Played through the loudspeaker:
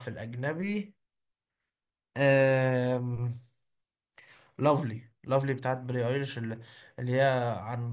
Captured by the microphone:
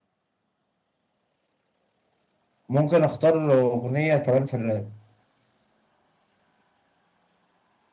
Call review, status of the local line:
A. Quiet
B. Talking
B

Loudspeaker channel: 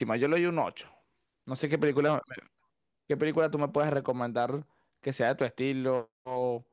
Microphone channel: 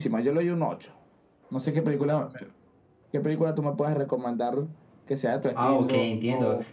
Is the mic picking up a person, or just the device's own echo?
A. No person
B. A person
B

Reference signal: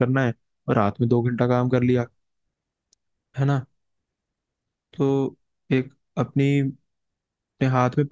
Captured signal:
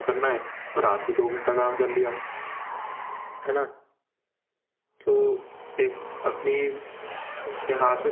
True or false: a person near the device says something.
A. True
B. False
B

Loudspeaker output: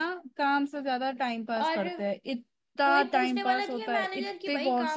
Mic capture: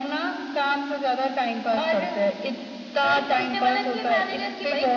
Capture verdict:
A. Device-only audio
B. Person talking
A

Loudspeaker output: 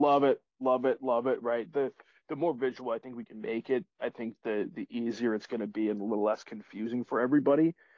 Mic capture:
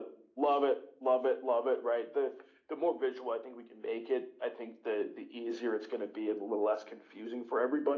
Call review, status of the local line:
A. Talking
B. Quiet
B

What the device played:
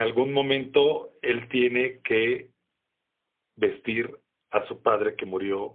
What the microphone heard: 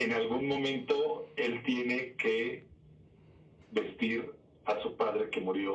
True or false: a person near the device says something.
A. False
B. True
A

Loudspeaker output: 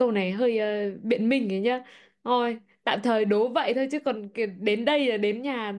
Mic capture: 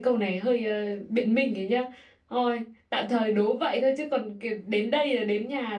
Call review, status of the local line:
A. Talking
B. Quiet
B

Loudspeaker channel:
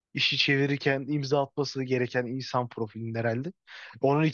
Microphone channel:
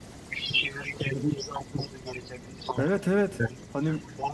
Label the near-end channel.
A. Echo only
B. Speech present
B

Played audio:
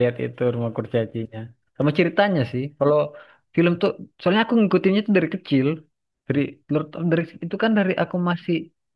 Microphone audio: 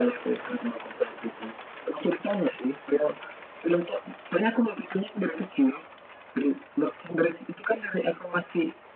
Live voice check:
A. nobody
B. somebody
A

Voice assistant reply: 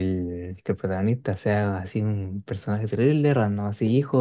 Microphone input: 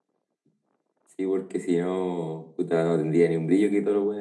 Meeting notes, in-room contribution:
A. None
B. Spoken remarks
B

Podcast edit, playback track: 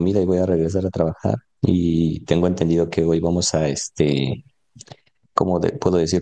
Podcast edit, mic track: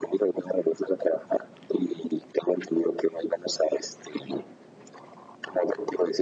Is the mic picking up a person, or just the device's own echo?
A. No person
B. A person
A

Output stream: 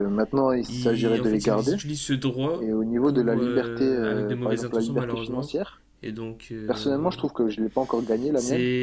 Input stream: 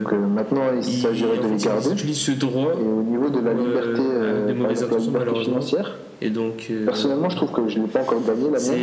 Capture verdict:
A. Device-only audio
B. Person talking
A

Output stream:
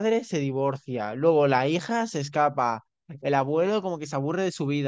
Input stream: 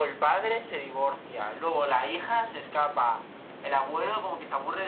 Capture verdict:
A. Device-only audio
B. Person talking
A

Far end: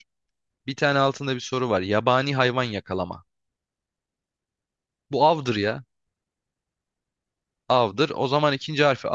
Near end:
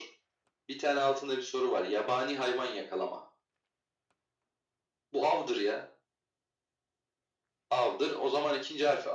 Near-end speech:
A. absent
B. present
A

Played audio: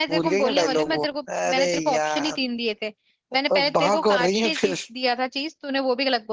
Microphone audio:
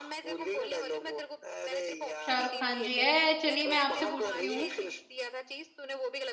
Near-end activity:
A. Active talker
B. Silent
A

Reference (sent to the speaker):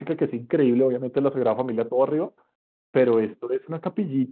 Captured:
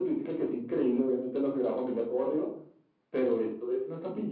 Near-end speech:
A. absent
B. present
A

